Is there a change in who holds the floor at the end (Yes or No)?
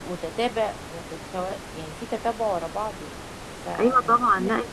Yes